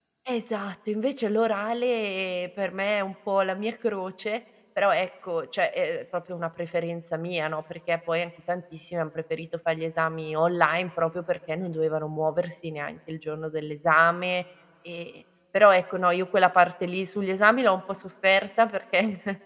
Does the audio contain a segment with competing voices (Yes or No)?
No